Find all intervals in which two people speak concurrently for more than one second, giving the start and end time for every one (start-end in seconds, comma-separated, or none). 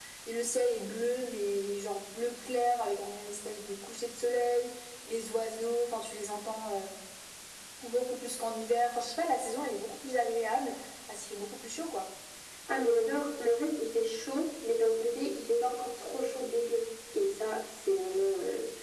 none